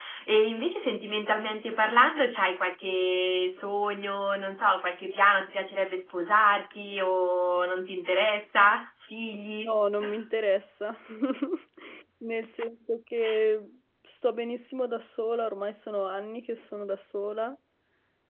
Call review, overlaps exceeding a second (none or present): none